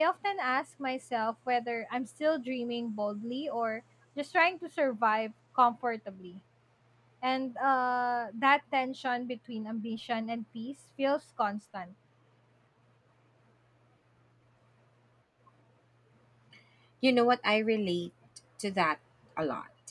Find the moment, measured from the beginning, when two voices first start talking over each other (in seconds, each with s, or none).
none